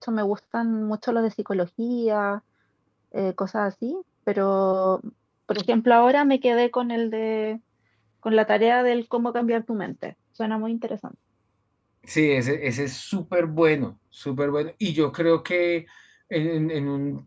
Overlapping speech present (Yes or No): No